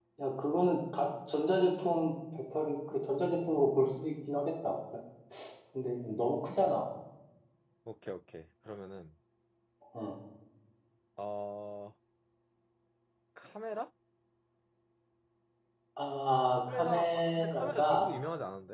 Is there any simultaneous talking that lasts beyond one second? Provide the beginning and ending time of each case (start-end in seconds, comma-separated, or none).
16.7-18.1